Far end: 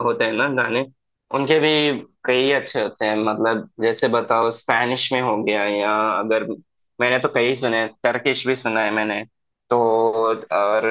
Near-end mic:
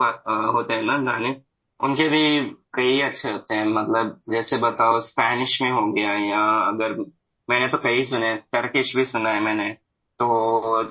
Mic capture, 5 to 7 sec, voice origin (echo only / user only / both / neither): echo only